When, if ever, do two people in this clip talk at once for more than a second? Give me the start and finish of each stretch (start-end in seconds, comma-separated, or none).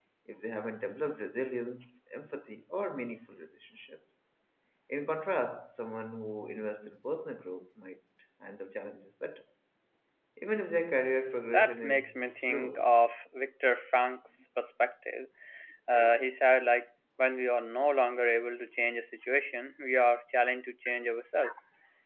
11.5-12.8